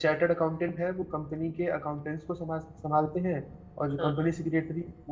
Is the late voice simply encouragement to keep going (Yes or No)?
Yes